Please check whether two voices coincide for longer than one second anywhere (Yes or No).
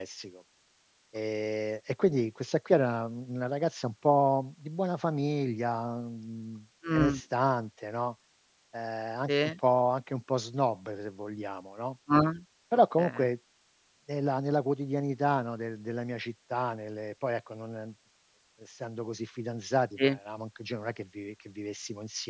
No